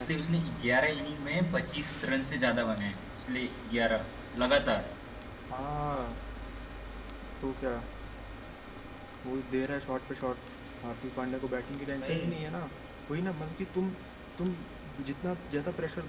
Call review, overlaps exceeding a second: none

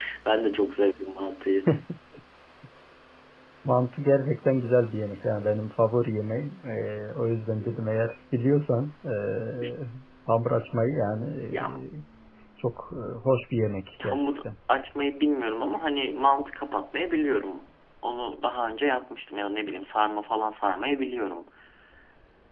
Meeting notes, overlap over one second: none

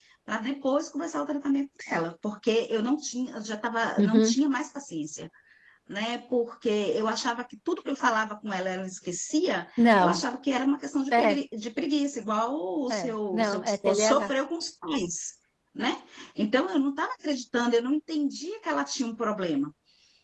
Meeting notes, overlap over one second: present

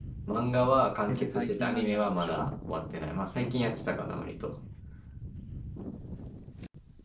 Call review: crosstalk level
present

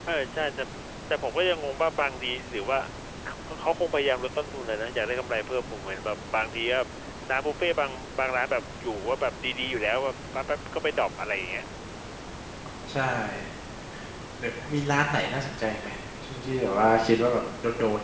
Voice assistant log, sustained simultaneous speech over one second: none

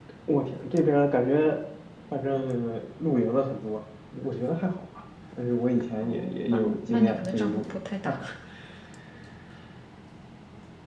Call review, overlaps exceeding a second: present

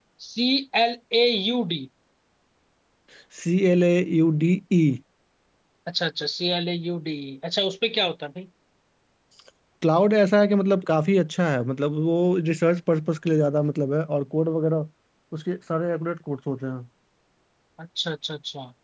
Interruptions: none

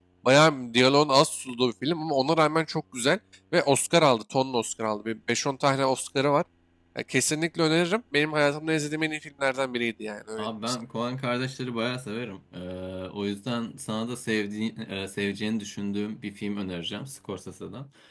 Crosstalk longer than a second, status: none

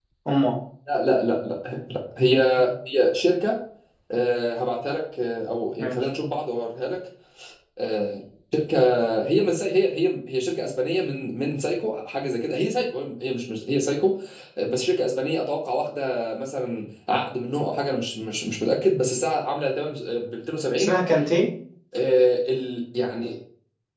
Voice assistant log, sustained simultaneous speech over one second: none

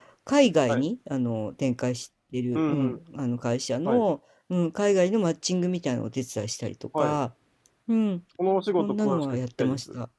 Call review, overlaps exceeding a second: present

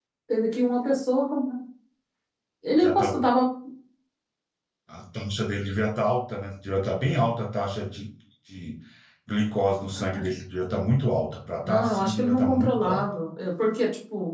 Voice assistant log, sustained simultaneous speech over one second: present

